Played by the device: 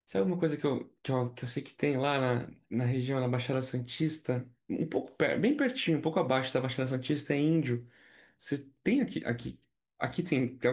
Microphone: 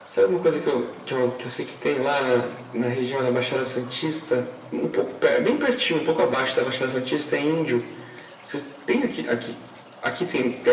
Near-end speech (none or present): none